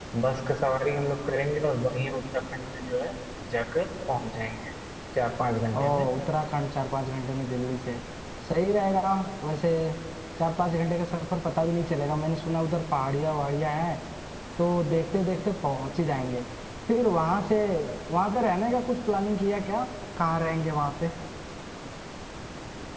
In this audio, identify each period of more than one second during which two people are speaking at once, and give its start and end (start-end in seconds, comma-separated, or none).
none